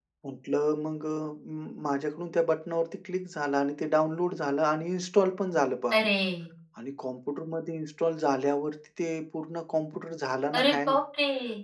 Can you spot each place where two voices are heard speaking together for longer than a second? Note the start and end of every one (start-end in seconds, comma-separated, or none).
none